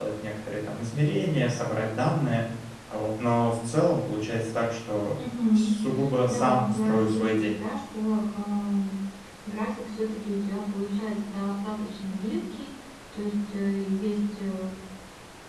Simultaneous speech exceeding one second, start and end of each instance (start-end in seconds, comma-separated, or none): 6.3-7.6